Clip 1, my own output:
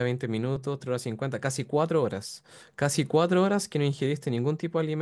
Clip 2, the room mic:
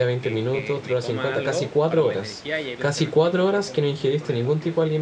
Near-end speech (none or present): present